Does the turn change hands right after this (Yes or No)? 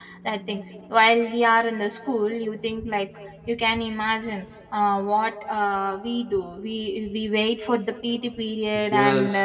Yes